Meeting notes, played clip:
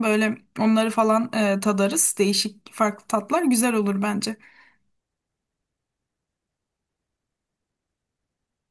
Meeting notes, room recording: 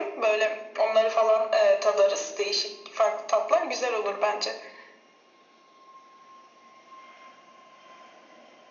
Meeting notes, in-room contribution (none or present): none